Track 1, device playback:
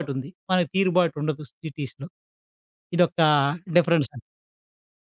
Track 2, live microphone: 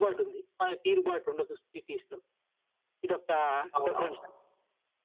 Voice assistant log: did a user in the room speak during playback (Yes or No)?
Yes